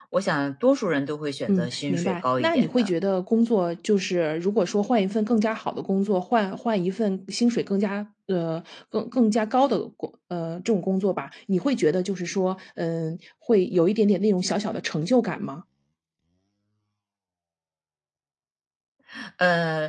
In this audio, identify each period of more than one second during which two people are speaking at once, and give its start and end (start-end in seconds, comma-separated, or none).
1.5-2.9